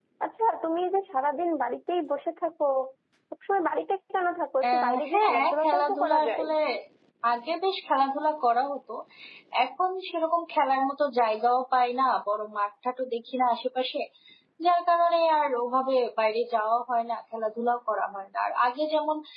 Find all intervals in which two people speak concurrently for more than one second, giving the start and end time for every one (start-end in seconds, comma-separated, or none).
4.7-6.4